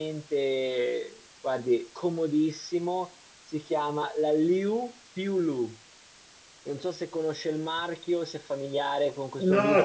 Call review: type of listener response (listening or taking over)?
taking over